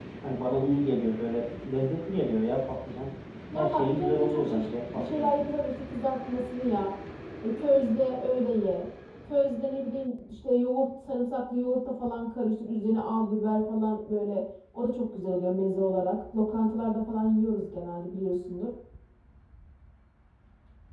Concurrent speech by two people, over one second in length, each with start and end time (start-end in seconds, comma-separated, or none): 3.5-5.3